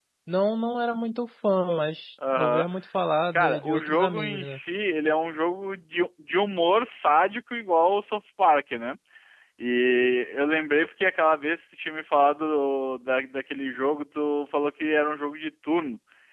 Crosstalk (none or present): present